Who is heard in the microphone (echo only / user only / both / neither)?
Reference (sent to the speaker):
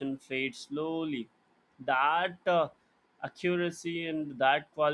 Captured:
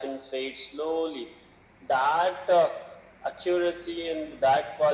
echo only